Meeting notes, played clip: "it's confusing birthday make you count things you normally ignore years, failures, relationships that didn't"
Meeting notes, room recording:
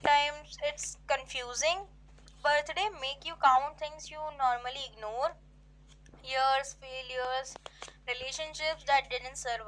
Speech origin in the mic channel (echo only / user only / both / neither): echo only